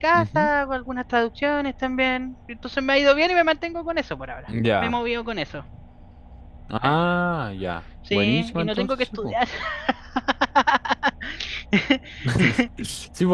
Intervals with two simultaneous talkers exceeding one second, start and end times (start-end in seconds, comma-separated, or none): 8.1-9.3